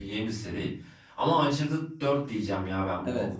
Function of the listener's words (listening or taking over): taking over